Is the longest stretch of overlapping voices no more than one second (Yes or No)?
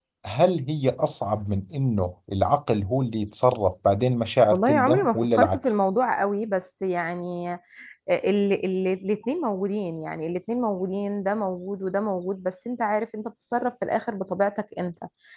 No